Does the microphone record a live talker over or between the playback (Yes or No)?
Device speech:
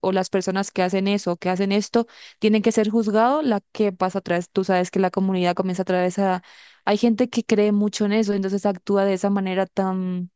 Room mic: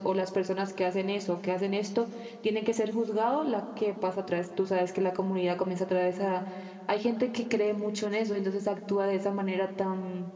No